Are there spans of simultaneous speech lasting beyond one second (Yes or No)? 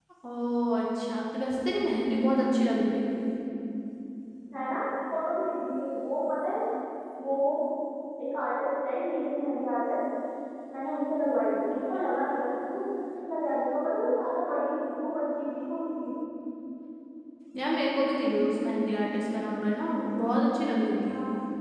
No